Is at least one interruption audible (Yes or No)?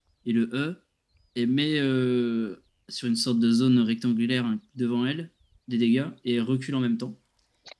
No